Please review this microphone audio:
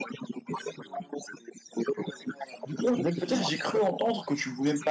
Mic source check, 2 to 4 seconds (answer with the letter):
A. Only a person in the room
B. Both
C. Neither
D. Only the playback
B